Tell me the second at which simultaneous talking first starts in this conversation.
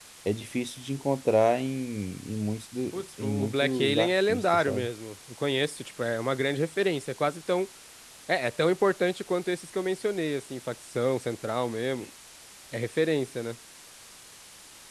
3 s

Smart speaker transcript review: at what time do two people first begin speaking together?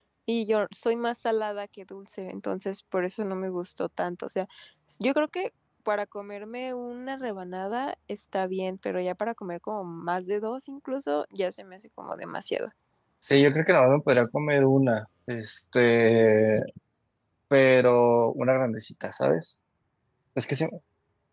none

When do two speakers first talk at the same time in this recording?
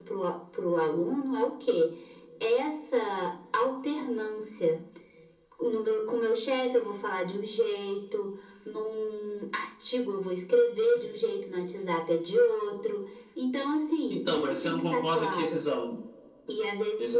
14 s

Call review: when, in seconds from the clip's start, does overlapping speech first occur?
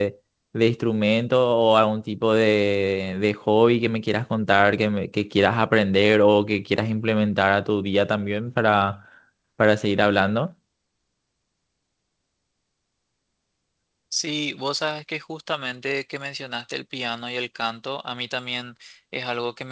none

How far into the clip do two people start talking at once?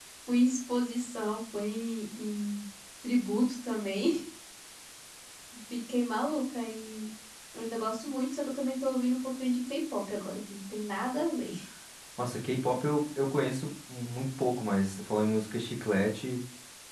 none

